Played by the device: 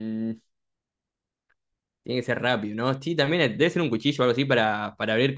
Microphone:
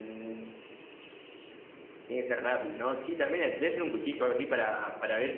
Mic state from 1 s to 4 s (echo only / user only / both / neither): echo only